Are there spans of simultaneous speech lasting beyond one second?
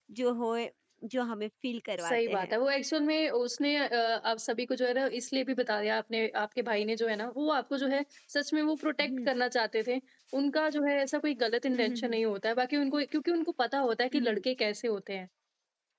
No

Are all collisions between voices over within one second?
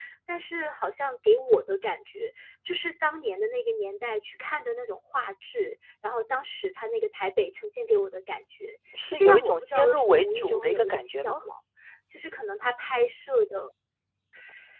No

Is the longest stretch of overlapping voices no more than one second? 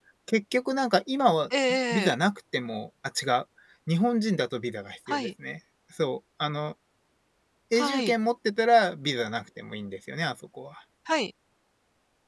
Yes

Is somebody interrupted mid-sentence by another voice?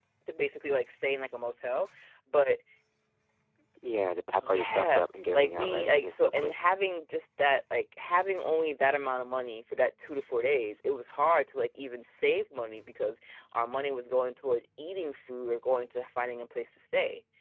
Yes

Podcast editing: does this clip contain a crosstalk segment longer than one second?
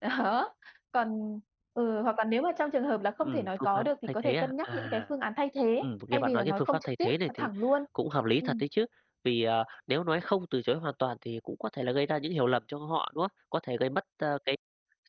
Yes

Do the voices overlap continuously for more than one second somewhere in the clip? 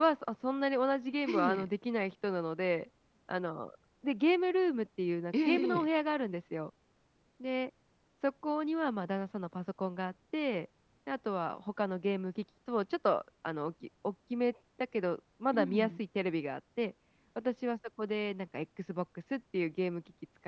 No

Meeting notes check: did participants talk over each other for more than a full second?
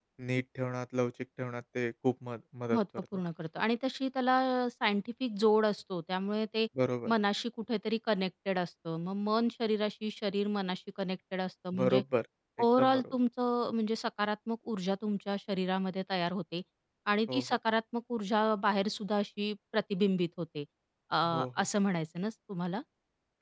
No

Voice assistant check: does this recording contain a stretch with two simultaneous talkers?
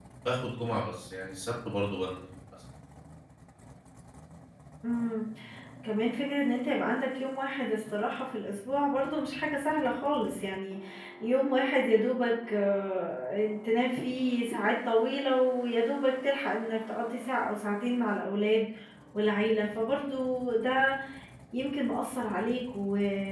No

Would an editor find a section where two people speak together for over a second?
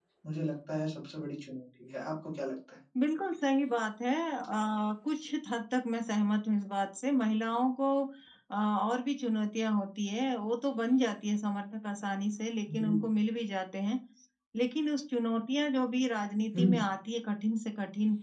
No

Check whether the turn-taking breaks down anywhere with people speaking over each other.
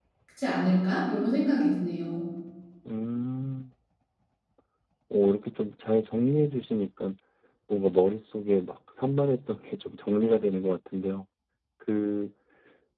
No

